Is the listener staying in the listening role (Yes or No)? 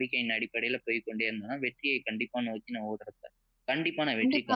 No